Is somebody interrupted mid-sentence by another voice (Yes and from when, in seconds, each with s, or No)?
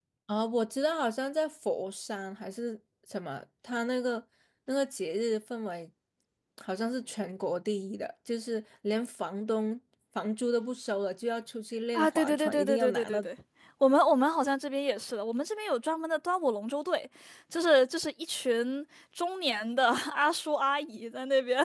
Yes, from 11.9 s